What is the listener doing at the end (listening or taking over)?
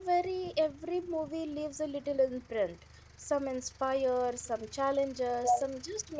listening